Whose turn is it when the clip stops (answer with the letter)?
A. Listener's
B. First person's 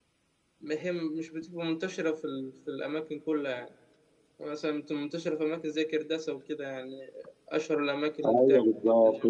A